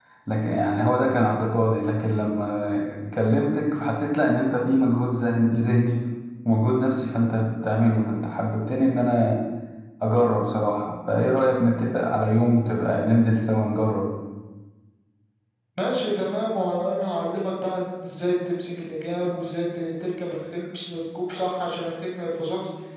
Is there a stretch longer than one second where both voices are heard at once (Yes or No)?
No